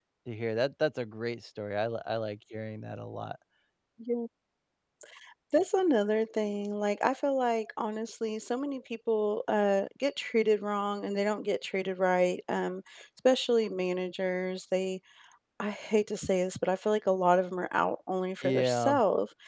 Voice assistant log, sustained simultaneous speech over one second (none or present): none